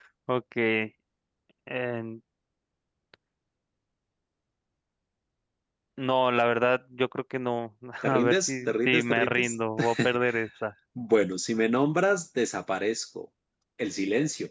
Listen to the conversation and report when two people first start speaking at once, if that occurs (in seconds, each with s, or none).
8.0 s